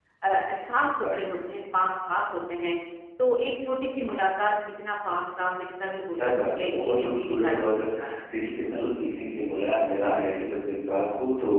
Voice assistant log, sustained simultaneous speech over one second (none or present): present